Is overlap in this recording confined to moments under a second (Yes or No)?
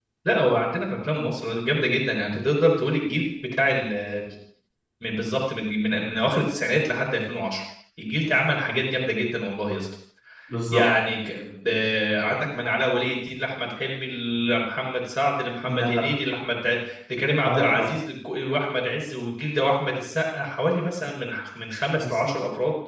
Yes